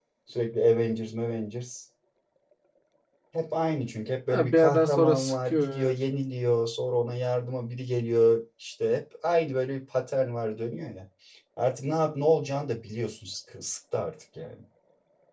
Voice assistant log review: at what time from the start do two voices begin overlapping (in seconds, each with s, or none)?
4.3 s